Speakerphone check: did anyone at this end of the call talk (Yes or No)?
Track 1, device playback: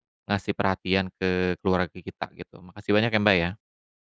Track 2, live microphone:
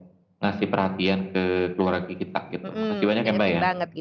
Yes